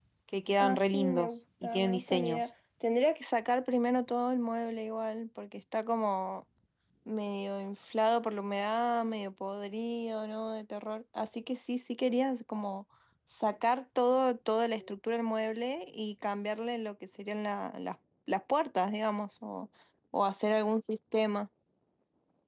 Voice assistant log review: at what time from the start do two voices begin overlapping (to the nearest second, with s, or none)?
1 s